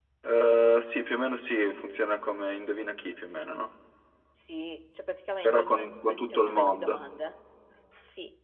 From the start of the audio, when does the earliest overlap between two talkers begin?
5.4 s

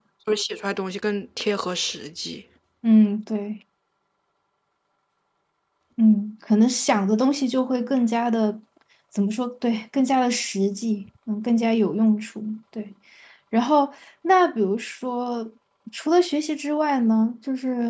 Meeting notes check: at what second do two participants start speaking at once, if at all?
none

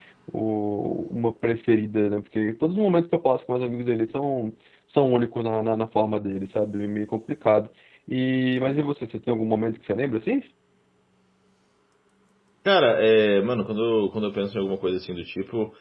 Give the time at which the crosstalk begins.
none

